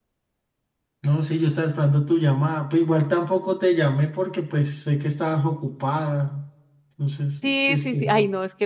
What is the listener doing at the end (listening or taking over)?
taking over